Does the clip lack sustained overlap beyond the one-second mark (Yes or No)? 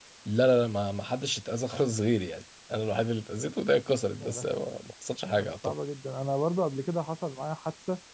Yes